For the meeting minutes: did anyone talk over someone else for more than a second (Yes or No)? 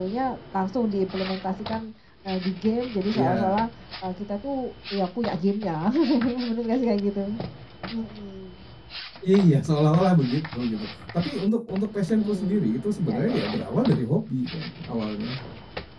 No